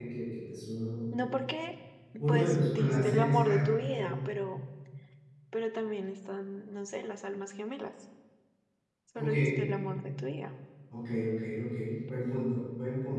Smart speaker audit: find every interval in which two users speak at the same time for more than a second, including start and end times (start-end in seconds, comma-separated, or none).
2.3-4.2